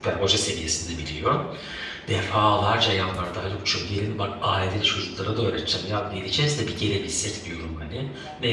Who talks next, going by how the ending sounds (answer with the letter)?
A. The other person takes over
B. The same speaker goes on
B